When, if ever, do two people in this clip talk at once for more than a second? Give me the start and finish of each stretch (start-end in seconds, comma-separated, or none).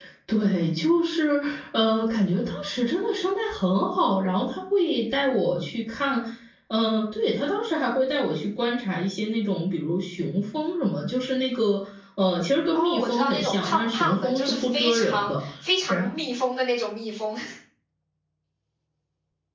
12.7-15.4